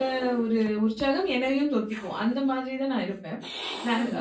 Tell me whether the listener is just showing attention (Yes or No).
Yes